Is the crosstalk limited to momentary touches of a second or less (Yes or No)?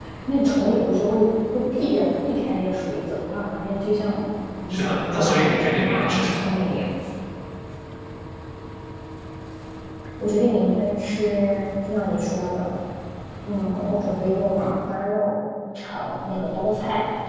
No